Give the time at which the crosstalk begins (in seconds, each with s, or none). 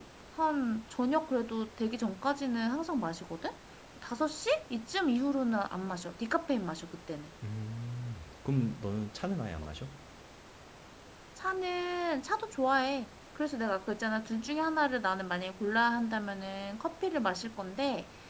none